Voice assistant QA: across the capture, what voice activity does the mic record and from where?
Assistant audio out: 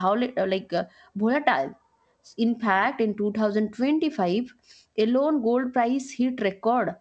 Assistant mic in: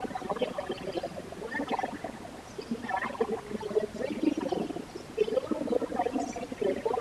echo only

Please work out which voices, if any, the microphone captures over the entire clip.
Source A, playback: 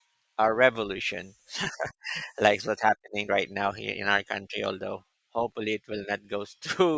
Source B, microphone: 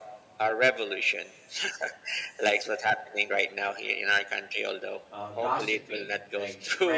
both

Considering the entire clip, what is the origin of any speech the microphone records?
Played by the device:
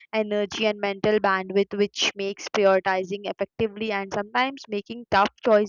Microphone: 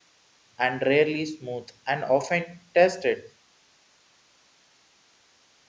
user only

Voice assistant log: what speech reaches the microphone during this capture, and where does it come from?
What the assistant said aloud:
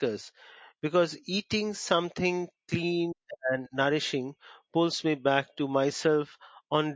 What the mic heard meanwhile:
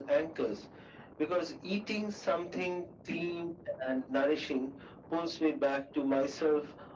echo only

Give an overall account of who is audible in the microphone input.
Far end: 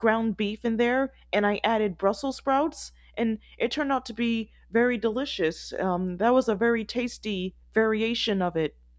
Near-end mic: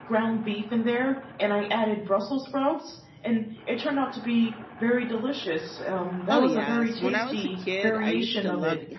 both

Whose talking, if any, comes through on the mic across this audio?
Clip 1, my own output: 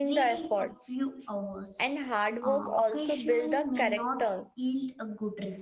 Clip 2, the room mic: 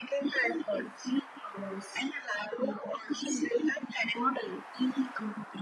echo only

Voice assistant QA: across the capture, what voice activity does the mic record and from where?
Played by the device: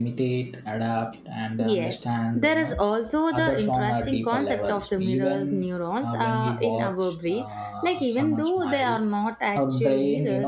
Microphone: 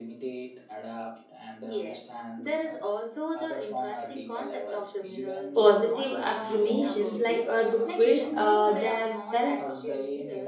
both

